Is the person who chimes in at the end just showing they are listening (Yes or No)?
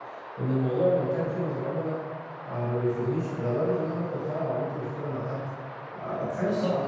No